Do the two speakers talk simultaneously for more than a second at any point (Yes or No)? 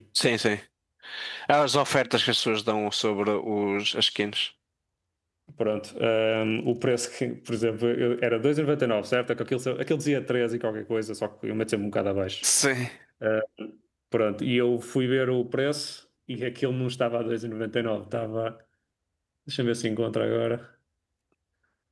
No